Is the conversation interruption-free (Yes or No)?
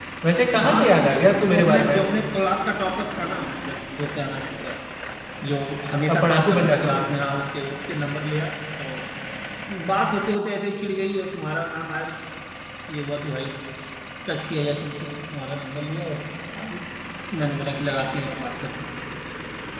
No